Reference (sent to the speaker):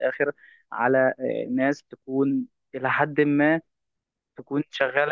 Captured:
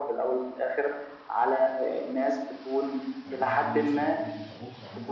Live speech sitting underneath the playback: Yes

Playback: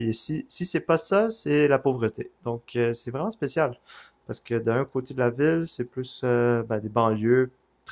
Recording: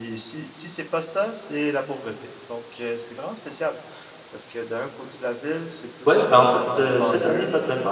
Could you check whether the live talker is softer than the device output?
No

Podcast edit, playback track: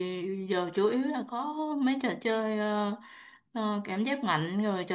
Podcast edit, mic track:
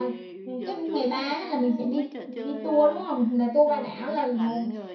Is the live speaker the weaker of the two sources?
No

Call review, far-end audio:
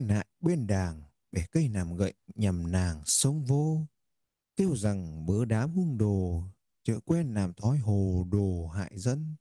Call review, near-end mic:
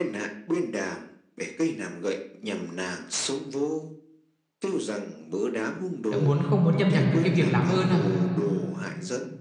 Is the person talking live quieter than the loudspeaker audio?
No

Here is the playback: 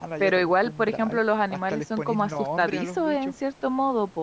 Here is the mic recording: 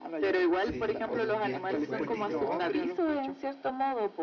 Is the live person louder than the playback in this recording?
No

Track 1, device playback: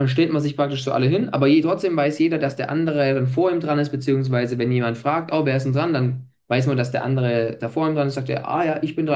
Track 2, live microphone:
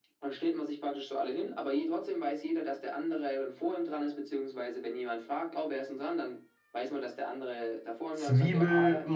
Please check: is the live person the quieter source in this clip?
No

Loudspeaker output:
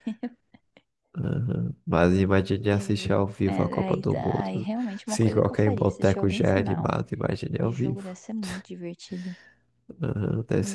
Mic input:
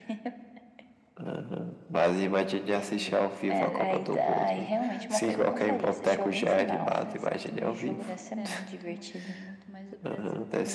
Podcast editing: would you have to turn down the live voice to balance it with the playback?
No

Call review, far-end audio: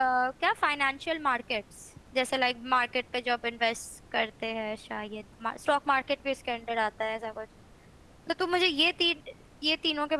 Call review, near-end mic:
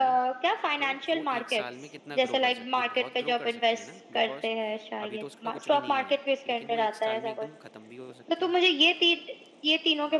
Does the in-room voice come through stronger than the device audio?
No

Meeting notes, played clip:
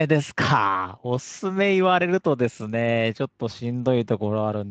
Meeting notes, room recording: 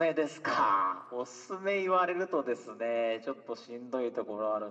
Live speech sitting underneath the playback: Yes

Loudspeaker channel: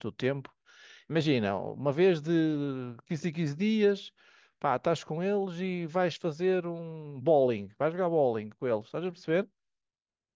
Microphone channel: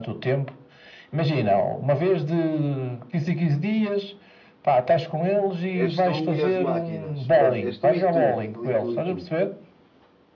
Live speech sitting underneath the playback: Yes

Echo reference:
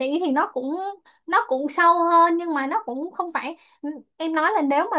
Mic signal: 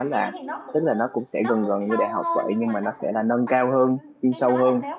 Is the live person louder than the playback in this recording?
Yes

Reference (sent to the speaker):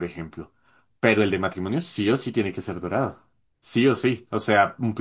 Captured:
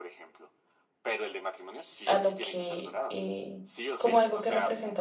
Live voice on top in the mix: Yes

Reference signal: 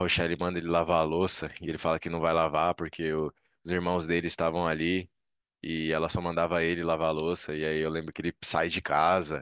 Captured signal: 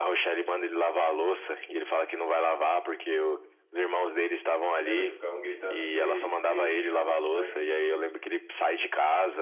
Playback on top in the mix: Yes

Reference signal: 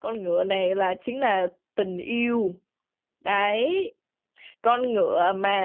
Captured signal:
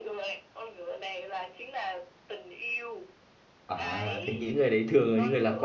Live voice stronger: Yes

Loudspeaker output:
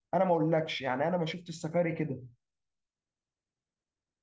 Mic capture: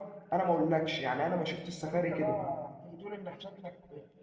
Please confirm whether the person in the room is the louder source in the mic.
No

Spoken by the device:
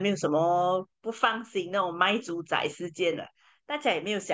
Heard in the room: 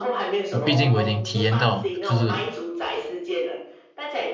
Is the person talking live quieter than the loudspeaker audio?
No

